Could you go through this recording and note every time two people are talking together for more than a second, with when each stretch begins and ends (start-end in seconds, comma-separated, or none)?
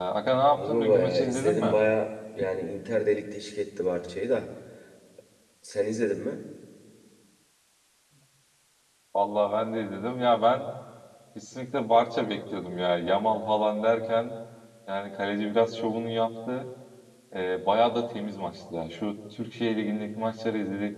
0.6-1.8